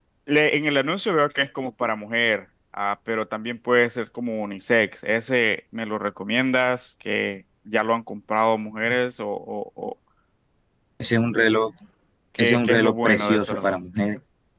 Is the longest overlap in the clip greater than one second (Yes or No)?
Yes